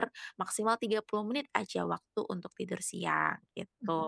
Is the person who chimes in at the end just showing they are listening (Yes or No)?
No